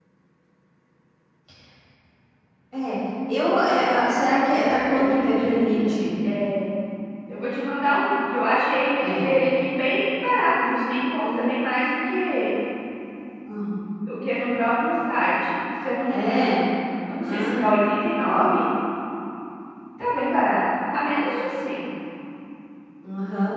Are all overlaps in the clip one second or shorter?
No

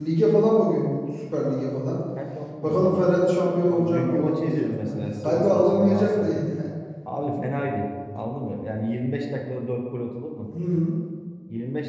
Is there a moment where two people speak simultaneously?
Yes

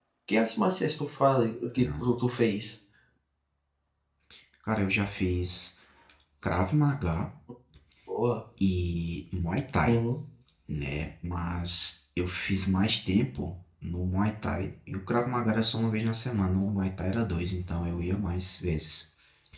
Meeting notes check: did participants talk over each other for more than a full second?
No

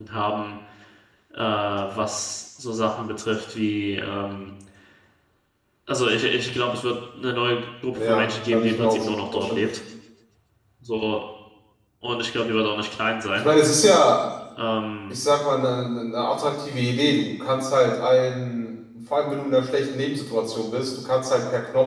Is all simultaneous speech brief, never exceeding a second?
No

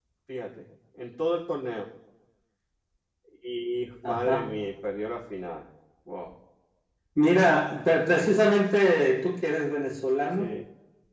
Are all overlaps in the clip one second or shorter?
Yes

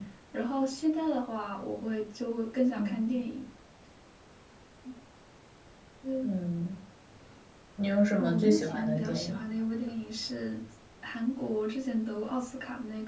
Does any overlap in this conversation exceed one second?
Yes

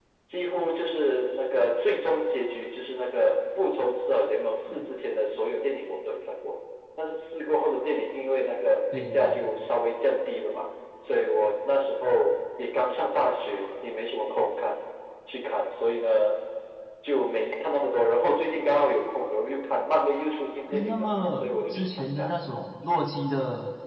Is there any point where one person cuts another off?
Yes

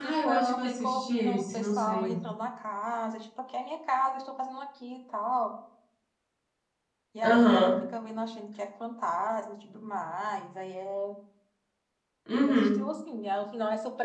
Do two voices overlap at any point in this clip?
Yes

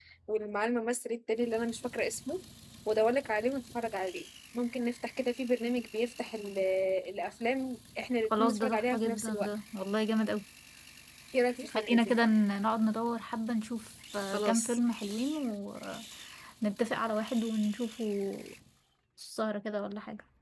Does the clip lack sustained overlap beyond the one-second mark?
No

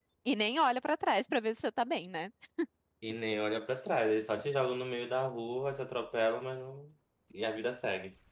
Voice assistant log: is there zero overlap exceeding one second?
Yes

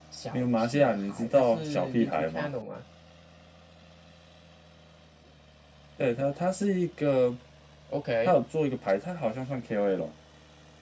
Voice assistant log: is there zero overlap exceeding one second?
No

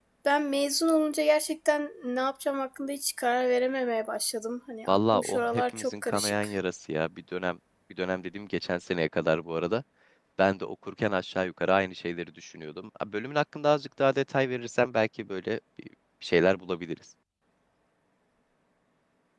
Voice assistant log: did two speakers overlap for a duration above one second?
Yes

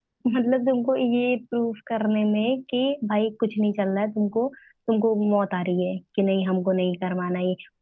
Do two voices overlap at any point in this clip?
No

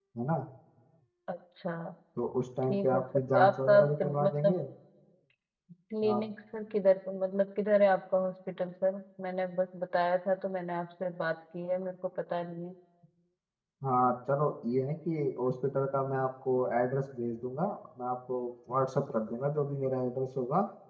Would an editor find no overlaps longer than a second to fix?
No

